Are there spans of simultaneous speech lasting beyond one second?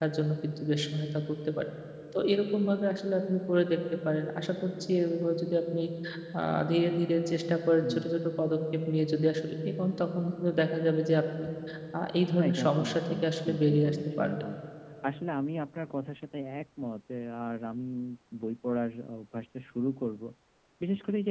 Yes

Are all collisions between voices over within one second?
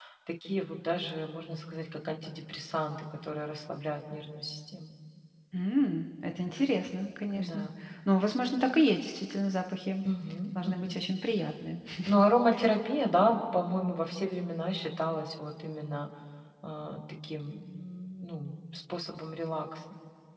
Yes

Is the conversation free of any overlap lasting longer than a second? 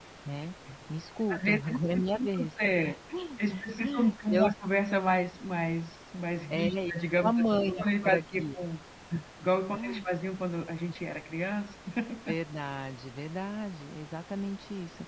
No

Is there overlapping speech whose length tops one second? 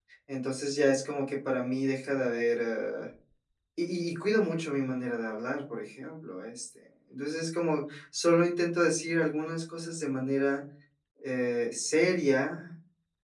No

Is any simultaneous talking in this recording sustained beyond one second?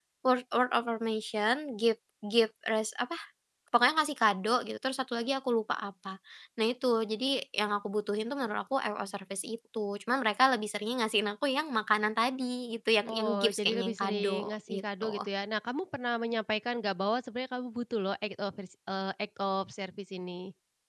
Yes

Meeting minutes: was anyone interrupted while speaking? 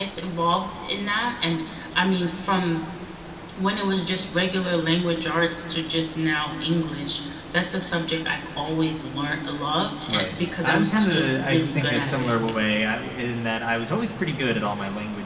Yes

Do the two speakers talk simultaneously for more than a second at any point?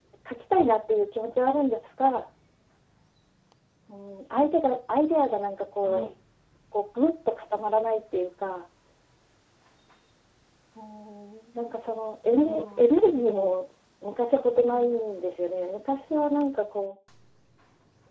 Yes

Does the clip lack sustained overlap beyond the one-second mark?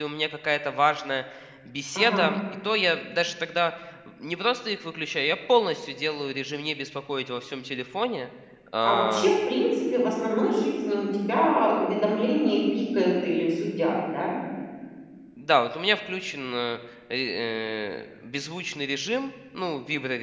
Yes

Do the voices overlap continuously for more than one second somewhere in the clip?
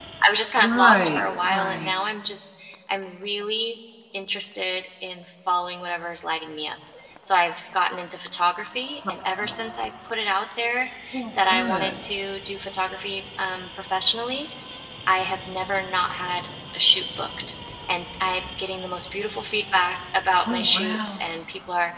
Yes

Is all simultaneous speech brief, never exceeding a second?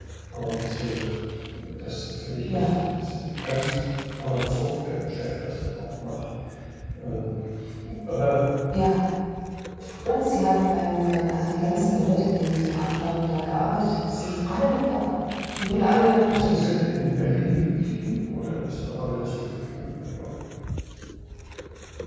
No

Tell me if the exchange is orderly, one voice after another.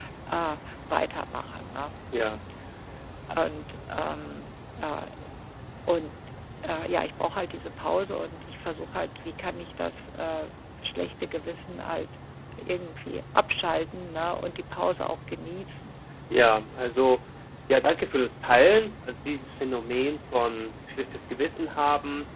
Yes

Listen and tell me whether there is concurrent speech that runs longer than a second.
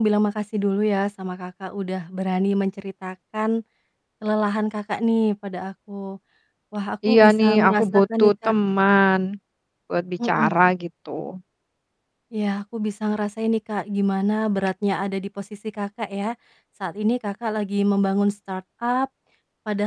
Yes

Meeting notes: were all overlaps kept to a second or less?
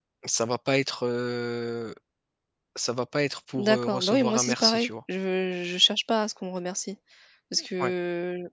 No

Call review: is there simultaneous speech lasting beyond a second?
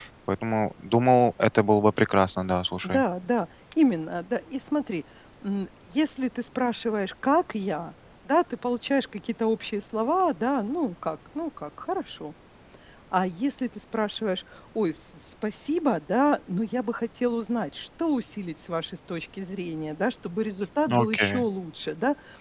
No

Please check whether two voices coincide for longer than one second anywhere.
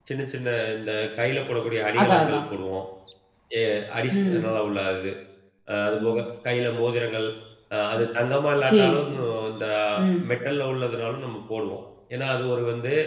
No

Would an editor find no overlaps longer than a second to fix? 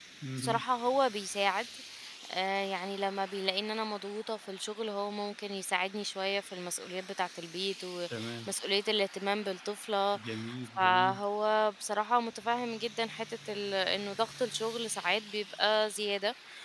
Yes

